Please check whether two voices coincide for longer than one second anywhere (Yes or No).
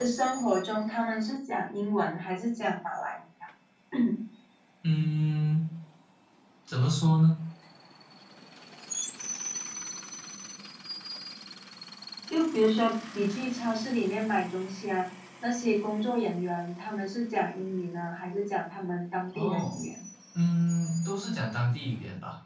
No